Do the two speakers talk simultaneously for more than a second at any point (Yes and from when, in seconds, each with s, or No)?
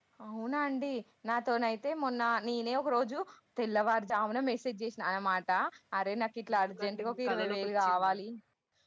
Yes, from 6.5 s